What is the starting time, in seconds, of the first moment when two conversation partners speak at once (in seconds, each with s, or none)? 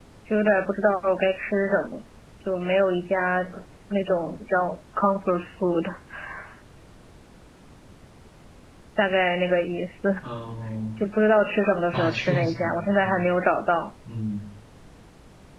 11.9 s